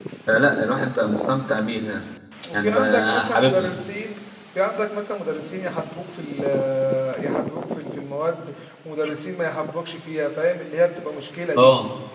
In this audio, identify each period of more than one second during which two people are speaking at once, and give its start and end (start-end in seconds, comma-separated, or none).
2.5-3.7